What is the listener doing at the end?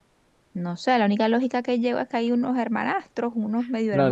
taking over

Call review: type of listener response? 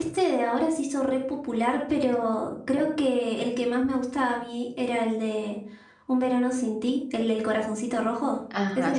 taking over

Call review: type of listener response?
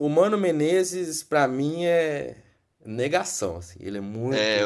taking over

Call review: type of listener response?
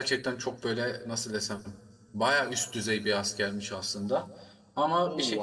taking over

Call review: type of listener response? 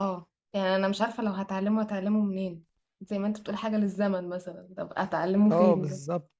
taking over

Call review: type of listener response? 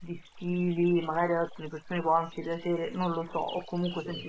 listening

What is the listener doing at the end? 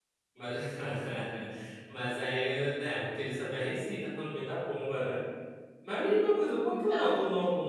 listening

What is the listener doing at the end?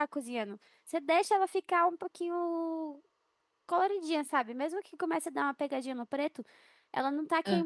listening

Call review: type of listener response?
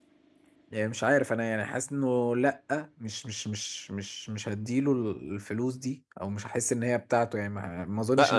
taking over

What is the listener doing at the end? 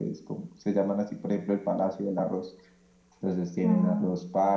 listening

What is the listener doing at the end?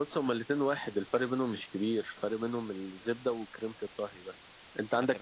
listening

